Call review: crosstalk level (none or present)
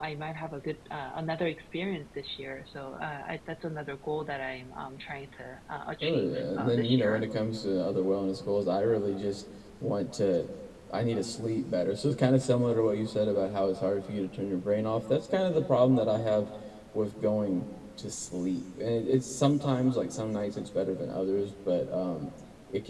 present